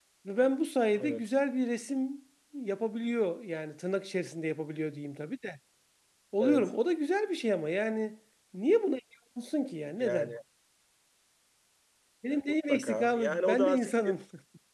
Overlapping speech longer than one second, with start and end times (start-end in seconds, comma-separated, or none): 12.7-14.1